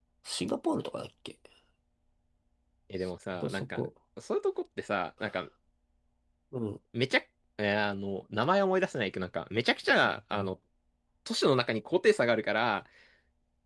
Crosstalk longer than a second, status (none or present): none